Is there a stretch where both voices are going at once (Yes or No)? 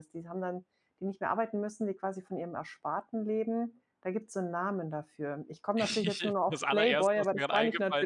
Yes